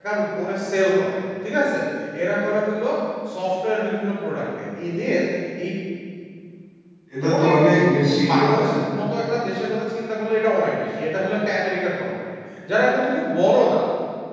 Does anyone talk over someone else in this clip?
Yes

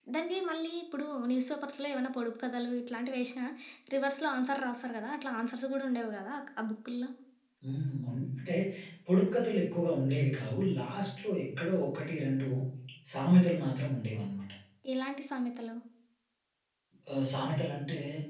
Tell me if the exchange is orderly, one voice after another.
Yes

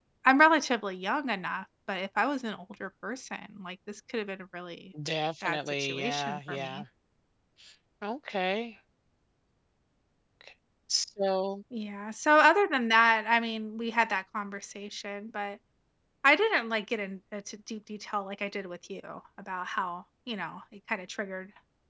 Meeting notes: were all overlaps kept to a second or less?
No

